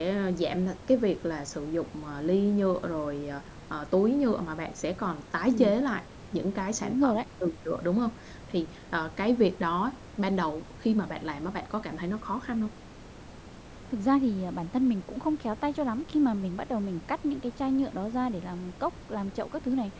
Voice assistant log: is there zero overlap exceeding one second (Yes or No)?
Yes